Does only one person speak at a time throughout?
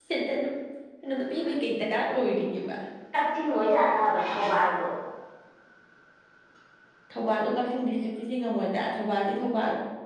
Yes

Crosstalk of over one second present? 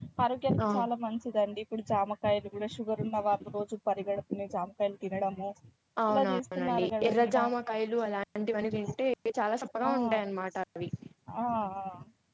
Yes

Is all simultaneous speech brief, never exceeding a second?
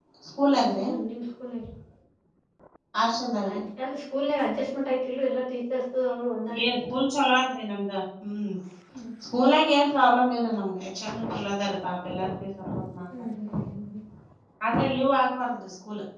Yes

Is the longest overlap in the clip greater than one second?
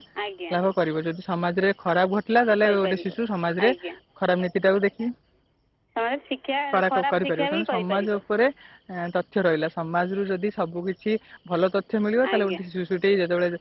Yes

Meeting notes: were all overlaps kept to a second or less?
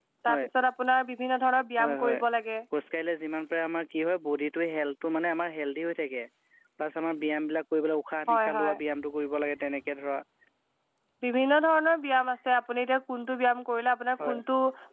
Yes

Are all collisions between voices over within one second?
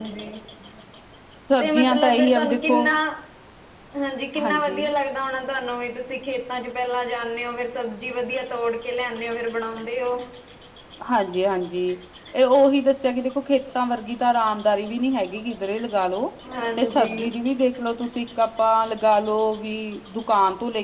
No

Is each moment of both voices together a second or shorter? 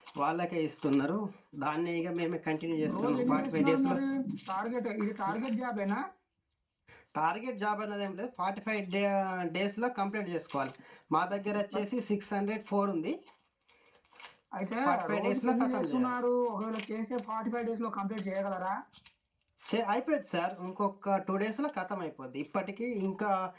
No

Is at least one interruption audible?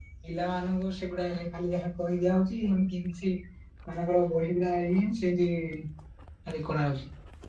No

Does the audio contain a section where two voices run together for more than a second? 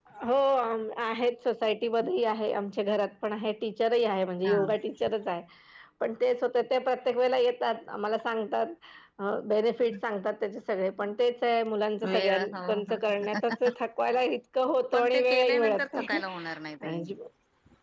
Yes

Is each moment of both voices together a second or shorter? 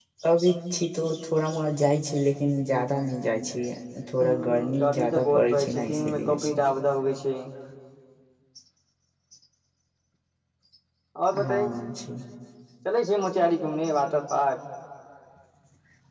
No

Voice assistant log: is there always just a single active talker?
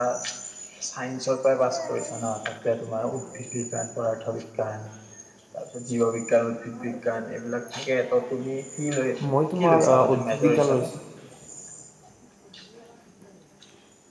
No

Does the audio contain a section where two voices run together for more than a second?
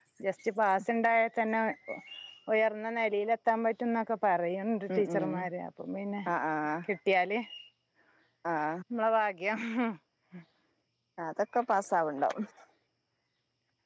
No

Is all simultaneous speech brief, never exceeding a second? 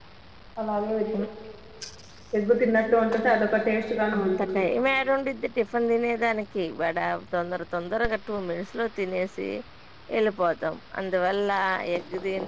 Yes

